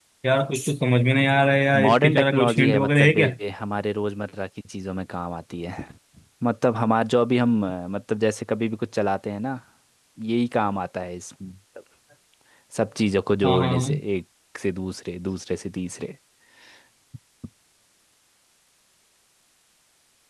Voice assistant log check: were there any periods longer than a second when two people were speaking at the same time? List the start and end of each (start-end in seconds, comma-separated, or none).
1.8-3.3